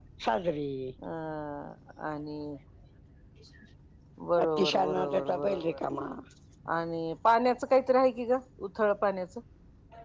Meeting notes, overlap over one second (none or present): present